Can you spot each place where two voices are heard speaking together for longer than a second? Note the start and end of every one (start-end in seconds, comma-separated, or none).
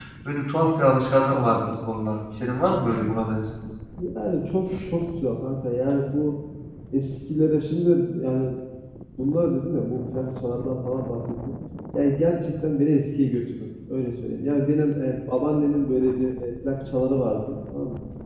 none